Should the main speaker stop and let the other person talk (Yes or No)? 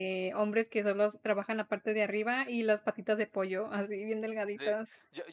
Yes